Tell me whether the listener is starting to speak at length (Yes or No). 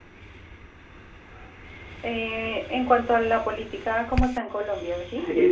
Yes